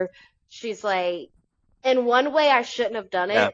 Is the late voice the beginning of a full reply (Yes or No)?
No